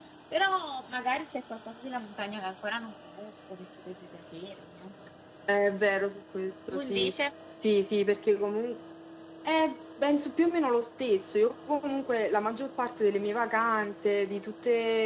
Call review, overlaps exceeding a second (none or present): none